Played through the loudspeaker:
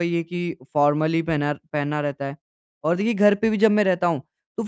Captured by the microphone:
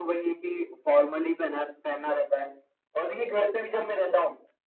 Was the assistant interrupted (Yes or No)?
No